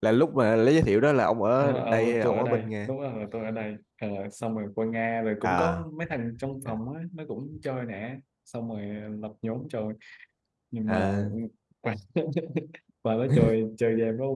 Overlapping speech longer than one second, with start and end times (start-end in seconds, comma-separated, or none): 1.6-2.9